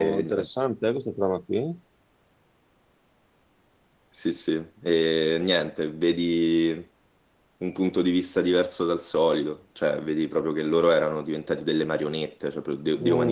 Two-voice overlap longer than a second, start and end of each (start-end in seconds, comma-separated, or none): none